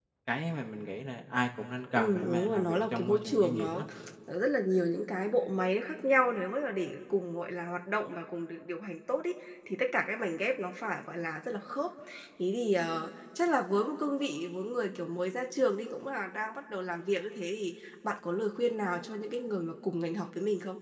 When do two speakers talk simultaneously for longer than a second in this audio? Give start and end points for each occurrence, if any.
1.9-3.8

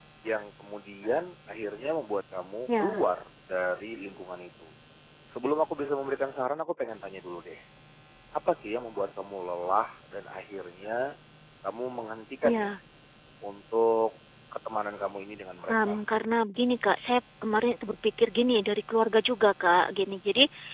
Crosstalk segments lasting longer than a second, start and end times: none

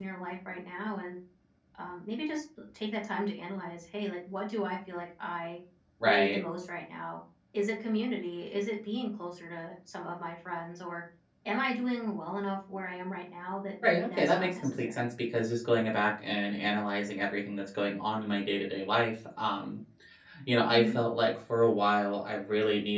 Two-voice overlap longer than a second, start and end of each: 13.8-15.1

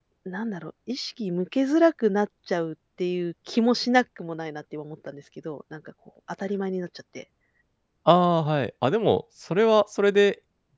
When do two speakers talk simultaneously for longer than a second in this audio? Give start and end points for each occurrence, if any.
none

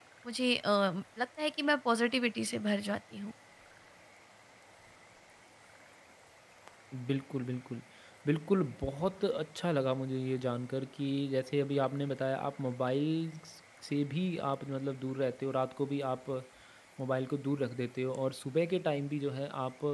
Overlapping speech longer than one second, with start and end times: none

